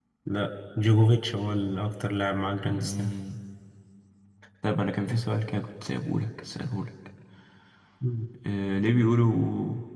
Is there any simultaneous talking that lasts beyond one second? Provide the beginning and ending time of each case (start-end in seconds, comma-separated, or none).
none